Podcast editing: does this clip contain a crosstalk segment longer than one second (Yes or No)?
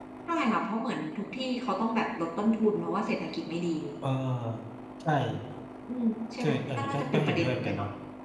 Yes